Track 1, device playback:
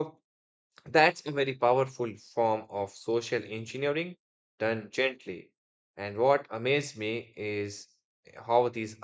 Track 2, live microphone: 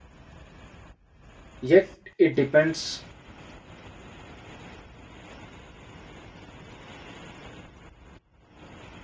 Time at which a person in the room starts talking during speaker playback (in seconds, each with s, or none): 1.6 s